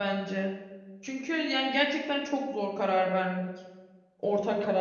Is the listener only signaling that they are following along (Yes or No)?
No